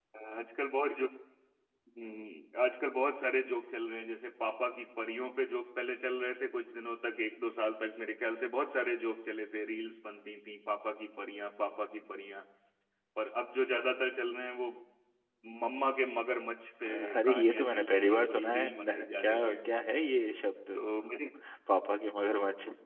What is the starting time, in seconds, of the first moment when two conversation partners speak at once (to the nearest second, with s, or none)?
17 s